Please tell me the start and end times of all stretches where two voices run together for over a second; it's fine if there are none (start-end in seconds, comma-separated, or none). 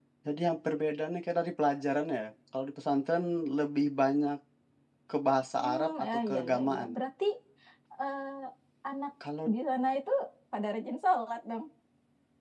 5.6-6.9